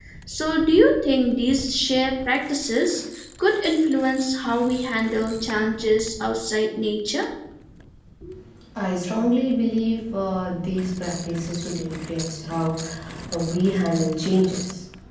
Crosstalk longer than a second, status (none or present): none